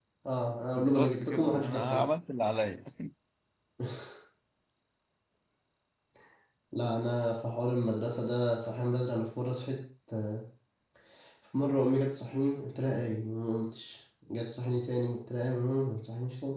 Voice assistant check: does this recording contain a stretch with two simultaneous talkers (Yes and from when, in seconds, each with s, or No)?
Yes, from 0.7 s